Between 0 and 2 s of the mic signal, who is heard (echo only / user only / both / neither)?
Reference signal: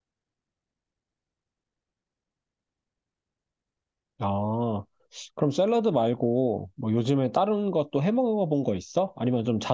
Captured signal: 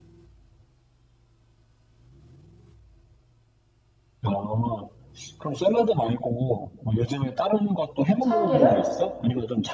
neither